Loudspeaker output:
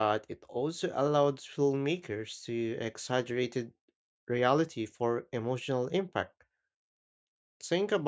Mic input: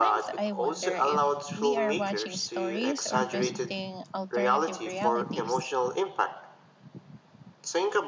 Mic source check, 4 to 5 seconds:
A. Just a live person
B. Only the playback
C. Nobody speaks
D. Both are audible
D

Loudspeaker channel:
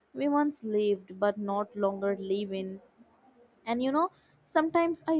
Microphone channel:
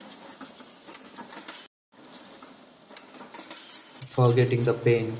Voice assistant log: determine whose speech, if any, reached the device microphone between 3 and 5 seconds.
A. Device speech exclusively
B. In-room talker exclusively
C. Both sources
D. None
B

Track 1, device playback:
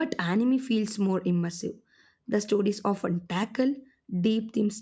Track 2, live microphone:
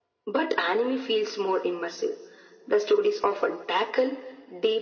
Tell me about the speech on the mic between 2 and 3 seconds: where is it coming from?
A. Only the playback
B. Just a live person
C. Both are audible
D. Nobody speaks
A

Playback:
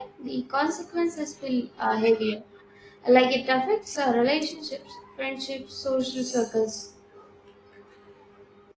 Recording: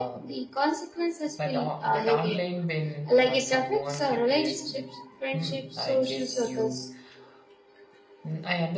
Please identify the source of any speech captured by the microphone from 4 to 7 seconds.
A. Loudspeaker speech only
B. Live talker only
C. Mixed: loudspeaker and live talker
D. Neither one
C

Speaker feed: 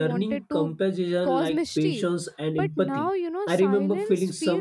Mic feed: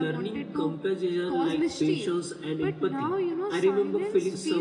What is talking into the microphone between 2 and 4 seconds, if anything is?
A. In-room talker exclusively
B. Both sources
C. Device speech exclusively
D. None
C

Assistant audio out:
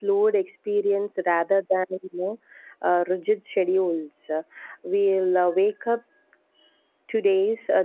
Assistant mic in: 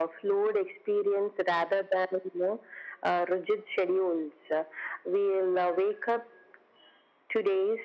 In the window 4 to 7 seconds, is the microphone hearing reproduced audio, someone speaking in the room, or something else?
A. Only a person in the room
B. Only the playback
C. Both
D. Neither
B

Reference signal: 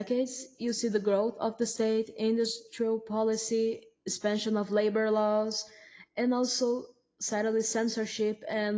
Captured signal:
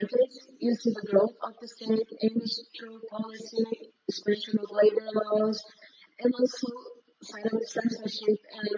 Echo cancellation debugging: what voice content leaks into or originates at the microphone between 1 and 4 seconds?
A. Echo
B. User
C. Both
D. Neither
A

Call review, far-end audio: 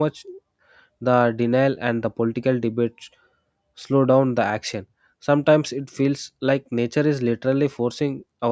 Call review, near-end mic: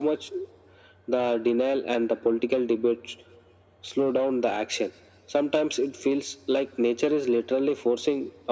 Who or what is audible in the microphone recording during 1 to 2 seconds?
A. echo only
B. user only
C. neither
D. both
A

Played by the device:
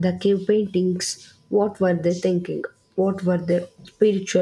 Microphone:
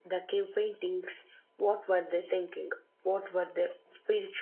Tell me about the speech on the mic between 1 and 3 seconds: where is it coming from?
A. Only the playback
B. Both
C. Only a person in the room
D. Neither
A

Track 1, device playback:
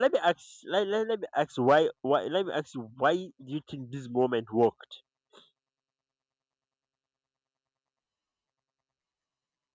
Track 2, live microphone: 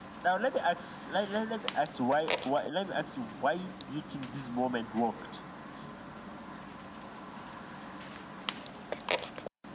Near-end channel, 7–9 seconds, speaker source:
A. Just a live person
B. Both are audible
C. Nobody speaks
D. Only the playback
C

